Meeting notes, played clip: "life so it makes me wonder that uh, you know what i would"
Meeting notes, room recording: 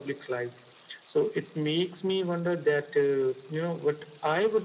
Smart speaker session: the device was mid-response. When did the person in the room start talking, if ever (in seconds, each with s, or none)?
none